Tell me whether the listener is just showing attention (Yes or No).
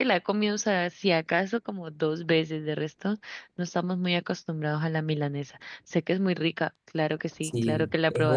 No